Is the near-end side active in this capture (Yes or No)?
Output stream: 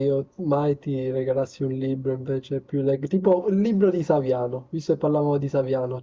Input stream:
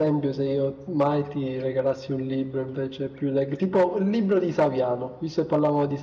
No